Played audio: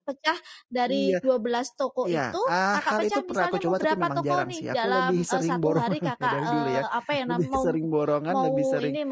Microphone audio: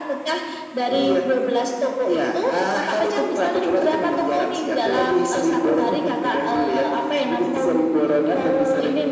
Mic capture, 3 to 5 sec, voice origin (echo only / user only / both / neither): echo only